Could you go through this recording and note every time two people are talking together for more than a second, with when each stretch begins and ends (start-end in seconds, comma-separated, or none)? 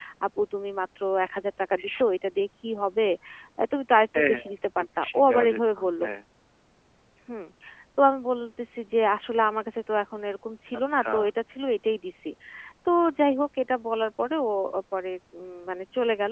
4.2-5.9